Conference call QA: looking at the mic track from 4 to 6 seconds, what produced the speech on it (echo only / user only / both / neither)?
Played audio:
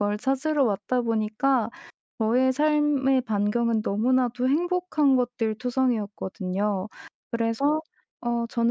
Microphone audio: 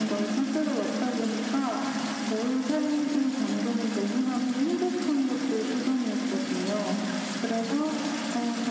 echo only